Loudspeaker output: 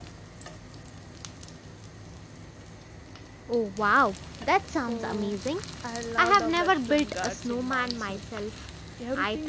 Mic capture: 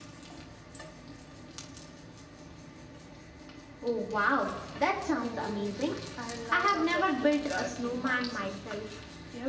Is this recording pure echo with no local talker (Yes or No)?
Yes